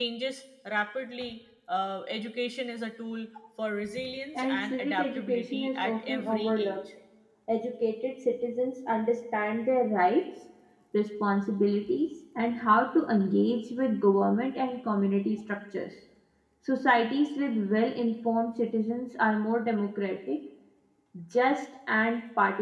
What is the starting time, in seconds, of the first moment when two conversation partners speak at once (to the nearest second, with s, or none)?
4 s